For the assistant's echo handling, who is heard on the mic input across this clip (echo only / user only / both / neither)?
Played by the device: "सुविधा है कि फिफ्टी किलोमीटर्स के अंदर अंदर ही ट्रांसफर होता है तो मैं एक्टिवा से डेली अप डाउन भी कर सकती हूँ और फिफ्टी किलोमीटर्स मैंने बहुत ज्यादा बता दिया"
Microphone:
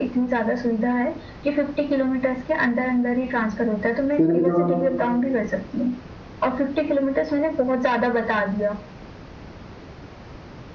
both